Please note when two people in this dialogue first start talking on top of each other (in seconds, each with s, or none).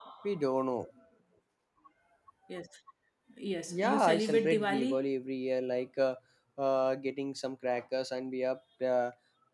3.7 s